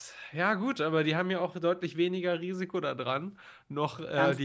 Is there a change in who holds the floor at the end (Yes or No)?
Yes